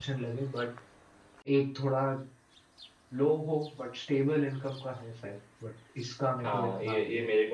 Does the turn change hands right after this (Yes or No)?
Yes